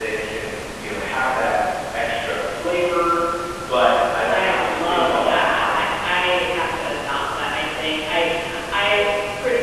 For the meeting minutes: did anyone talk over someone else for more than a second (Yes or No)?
Yes